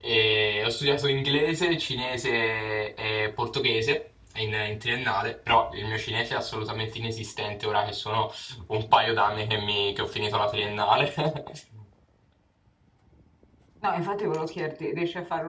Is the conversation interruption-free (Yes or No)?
Yes